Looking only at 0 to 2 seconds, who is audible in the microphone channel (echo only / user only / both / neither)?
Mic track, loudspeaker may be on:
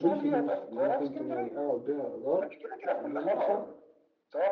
both